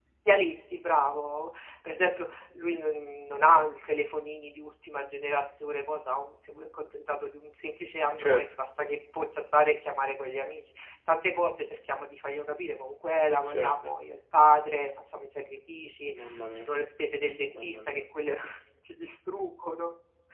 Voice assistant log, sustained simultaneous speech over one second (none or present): none